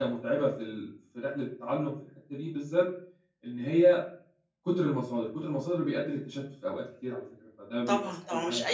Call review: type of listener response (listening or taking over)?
taking over